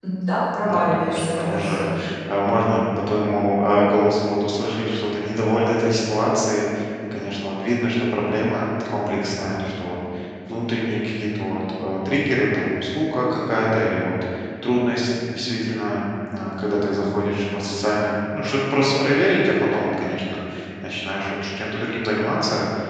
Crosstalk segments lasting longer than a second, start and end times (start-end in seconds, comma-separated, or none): 0.6-1.8